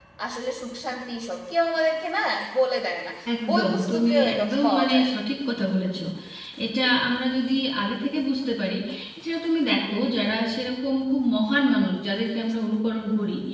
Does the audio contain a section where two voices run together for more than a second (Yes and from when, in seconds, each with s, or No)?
Yes, from 3.5 s